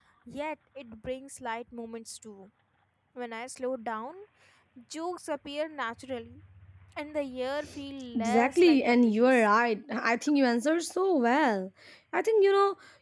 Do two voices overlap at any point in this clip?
Yes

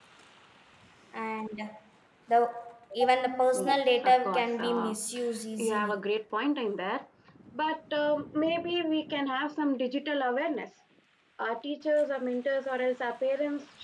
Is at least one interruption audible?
Yes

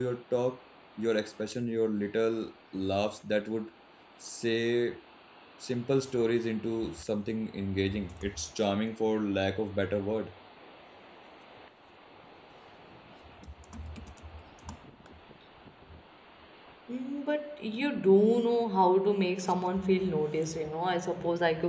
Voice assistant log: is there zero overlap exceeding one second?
Yes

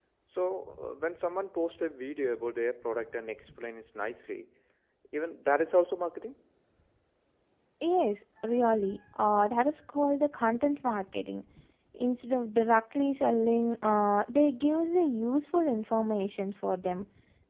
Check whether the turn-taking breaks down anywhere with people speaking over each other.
No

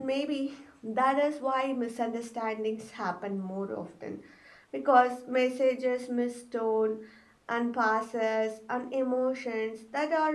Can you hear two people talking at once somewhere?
No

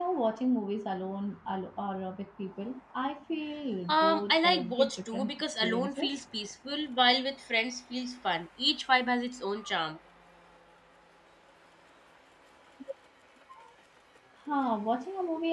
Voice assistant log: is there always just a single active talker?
No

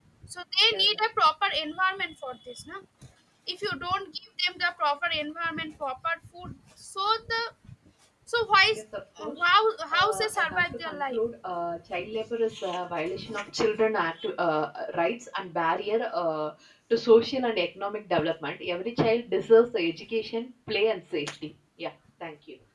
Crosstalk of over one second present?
Yes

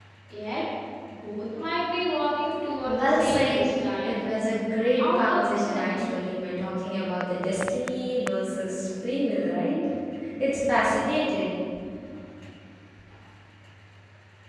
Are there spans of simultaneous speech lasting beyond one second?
Yes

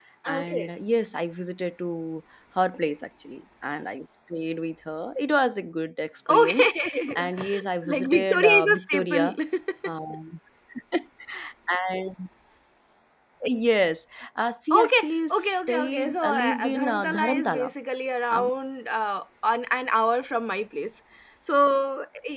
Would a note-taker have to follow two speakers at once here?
Yes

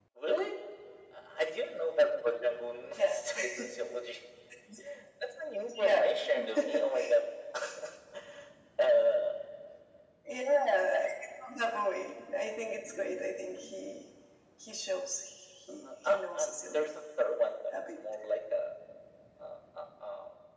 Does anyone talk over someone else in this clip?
Yes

